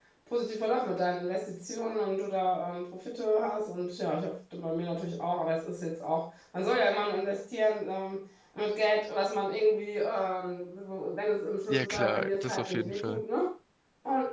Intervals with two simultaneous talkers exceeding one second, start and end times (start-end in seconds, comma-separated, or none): 11.7-13.2